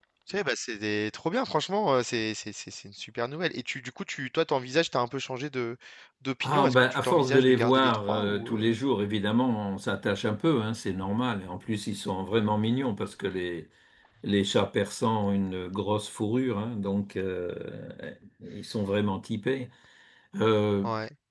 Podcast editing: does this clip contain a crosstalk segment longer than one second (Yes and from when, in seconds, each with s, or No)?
Yes, from 6.4 s